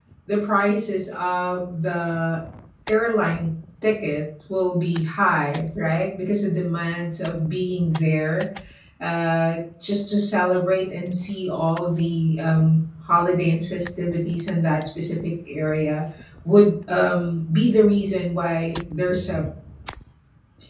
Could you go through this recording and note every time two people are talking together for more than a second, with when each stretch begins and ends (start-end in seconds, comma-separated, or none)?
none